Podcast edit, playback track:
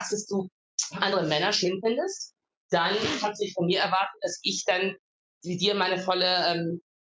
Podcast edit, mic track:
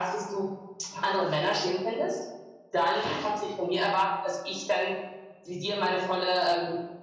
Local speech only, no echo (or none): none